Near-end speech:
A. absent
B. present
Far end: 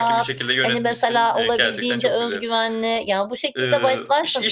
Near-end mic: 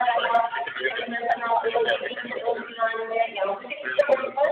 A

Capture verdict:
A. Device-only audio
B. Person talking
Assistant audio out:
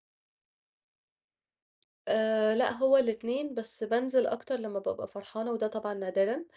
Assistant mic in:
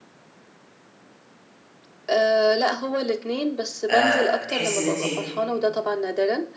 B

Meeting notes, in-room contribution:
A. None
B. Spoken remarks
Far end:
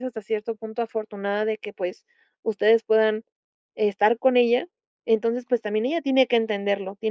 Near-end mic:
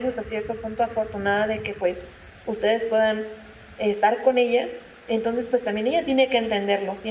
A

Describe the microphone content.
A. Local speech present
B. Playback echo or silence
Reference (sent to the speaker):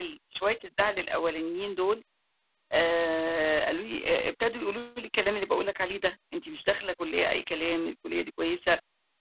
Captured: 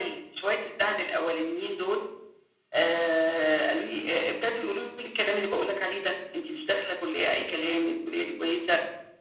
B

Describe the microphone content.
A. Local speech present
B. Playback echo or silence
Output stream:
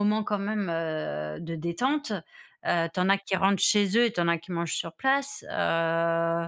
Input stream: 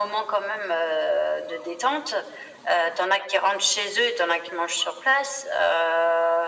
B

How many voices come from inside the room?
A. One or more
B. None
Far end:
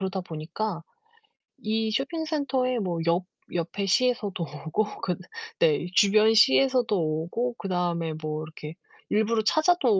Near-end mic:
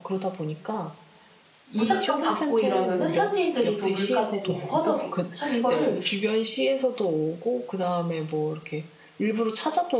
A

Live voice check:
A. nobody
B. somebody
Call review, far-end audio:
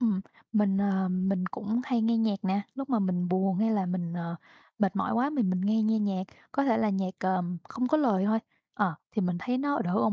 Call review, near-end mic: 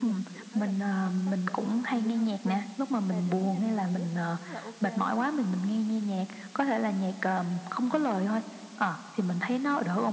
B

